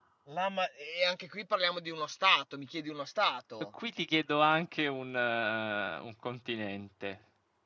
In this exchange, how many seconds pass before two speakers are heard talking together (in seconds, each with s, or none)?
none